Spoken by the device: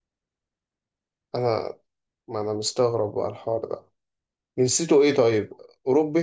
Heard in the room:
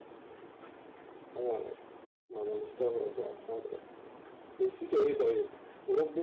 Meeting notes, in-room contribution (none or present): none